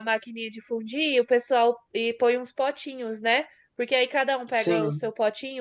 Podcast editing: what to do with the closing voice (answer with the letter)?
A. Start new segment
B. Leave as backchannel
B